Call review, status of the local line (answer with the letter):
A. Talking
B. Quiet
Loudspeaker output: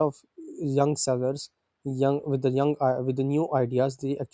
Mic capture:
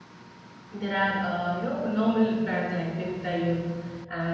A